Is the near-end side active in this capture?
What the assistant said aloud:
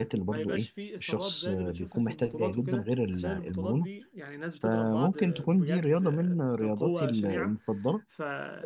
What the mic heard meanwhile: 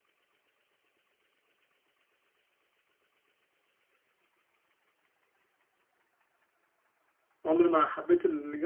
Yes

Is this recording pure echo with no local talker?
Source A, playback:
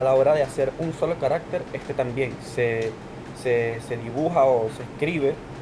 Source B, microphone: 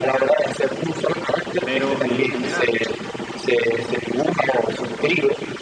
No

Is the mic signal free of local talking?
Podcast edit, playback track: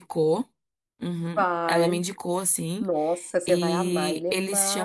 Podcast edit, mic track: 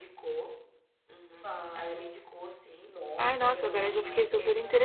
No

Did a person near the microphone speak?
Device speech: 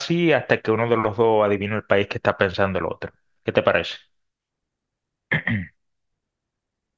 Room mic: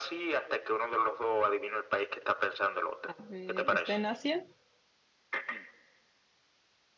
Yes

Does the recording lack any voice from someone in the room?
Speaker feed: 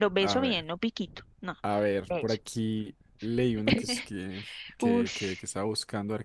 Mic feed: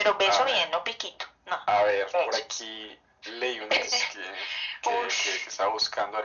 Yes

